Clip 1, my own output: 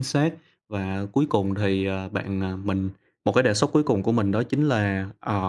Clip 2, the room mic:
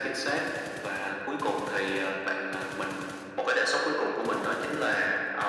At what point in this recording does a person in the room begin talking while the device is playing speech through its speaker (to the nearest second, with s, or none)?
none